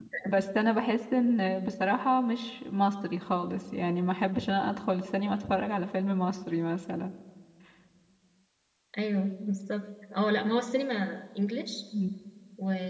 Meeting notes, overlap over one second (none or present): none